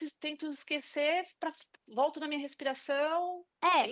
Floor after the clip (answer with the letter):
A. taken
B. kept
A